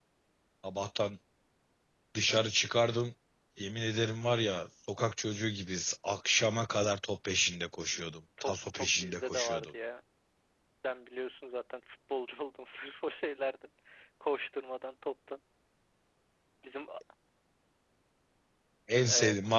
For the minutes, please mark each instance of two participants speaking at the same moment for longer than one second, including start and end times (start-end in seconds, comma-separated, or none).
8.4-9.7